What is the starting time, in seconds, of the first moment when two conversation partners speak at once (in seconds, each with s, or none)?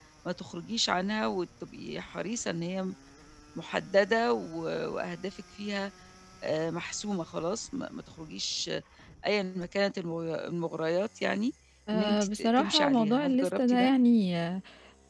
11.9 s